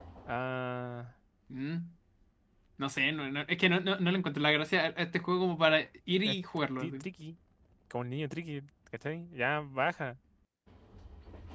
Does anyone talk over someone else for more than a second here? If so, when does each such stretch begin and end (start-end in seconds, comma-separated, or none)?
none